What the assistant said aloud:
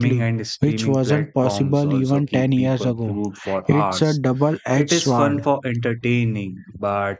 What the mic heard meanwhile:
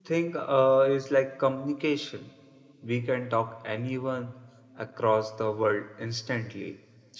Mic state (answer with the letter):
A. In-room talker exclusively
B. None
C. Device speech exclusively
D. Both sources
A